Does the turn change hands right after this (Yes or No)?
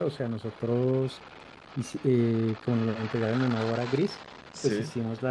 No